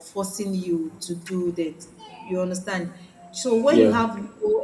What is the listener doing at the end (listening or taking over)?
listening